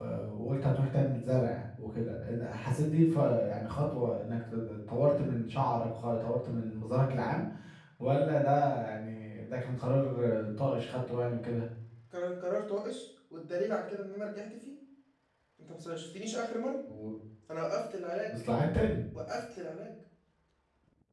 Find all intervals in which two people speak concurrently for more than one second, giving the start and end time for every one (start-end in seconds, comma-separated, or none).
none